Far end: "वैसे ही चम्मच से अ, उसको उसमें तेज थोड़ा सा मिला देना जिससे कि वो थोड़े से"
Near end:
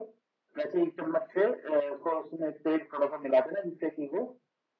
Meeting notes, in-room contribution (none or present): none